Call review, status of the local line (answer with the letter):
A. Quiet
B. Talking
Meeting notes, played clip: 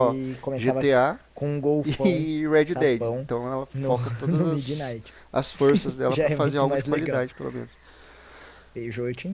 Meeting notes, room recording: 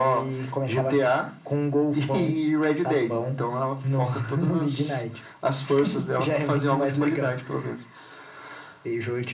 A